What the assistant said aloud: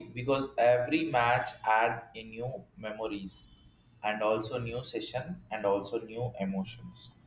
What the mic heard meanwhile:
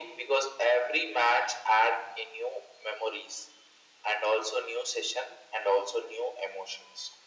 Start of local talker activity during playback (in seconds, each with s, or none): none